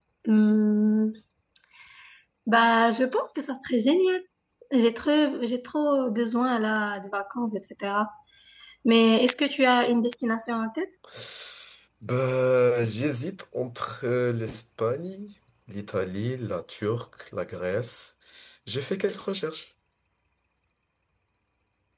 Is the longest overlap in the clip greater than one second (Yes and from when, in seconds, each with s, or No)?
No